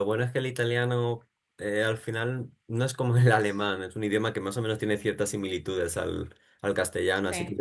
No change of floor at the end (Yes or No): Yes